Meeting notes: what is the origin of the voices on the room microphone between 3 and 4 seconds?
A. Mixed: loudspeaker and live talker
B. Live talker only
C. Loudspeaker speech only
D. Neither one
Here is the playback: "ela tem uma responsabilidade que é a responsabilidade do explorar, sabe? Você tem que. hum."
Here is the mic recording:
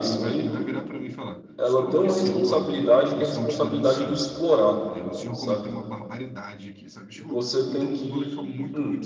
A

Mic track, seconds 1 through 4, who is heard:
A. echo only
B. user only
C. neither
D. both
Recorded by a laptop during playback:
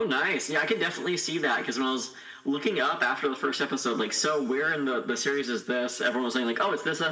A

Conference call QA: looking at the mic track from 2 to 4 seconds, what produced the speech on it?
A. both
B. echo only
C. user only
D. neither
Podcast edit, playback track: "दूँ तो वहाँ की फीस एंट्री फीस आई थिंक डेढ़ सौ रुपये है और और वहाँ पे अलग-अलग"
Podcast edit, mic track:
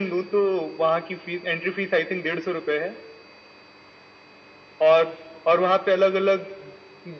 B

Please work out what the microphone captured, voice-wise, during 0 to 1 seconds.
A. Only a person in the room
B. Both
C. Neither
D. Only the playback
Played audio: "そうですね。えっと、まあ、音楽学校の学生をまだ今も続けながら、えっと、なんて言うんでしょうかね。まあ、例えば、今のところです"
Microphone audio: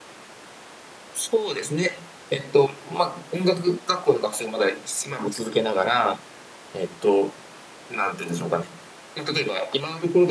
C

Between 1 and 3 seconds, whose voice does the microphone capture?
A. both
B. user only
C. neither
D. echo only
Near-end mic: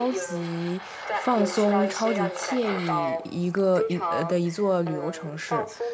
A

